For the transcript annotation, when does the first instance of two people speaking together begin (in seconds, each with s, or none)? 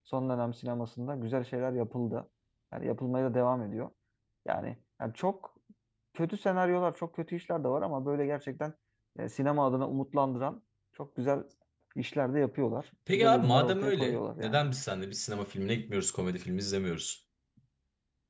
13.1 s